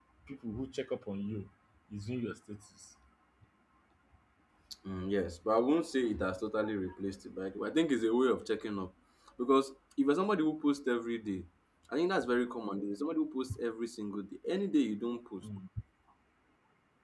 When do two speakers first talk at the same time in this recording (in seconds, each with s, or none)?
none